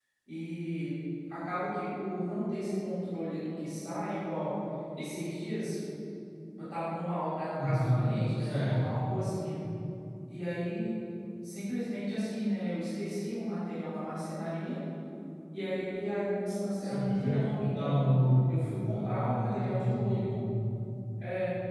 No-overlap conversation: No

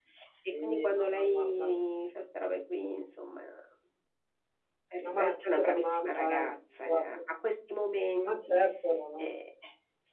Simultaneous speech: Yes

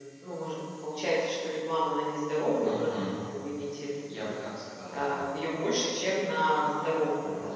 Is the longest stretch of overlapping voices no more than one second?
Yes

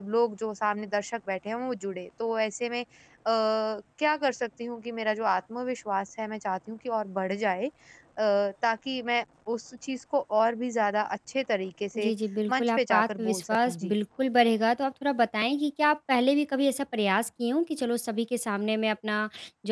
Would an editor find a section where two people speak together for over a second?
Yes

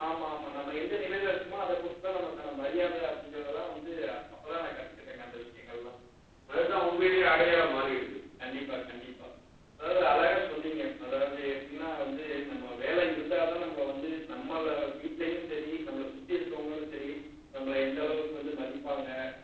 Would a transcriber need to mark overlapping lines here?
No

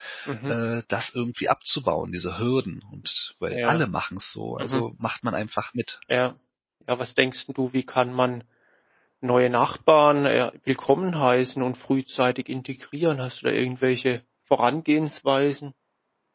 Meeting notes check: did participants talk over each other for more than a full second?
No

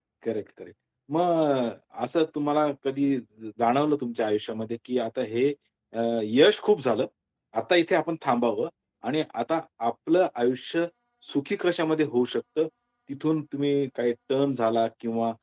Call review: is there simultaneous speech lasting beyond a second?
No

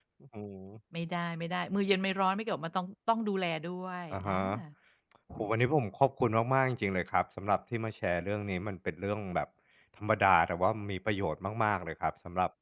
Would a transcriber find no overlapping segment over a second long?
Yes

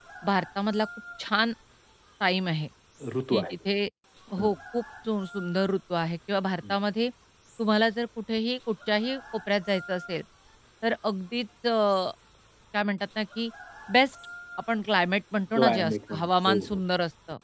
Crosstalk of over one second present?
Yes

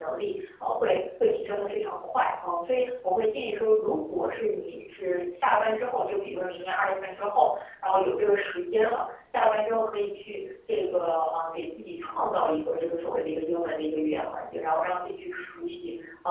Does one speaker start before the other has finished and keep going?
No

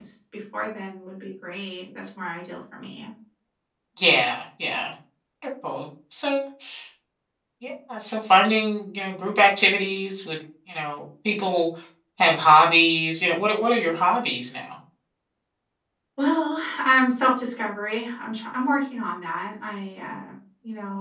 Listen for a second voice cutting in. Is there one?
No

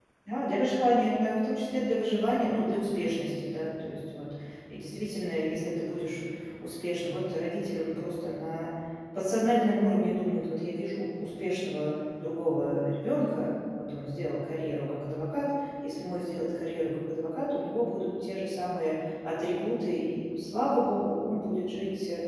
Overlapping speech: No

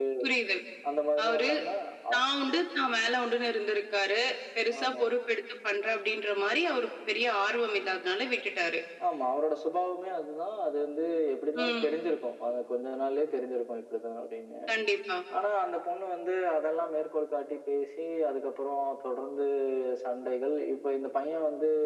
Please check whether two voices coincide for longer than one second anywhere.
No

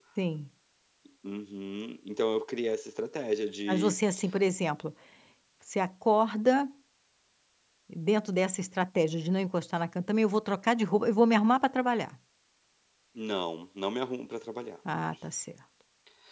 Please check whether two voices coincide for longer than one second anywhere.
No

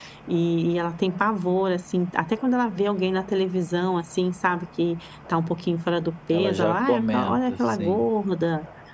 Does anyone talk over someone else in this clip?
Yes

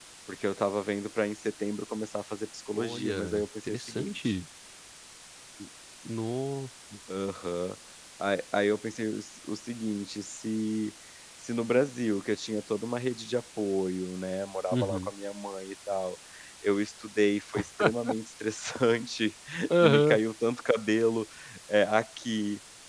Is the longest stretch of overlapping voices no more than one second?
No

